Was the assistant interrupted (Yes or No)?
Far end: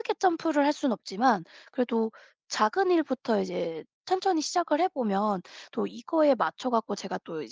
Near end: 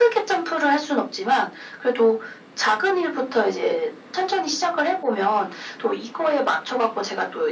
No